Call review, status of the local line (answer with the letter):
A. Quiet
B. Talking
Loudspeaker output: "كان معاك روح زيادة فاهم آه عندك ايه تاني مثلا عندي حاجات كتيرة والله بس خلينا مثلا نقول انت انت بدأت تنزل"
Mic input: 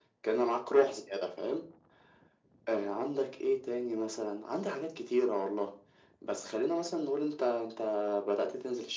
A